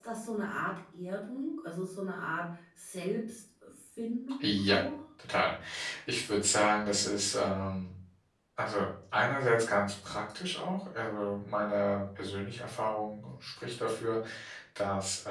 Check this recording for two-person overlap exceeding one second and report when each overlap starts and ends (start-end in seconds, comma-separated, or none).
none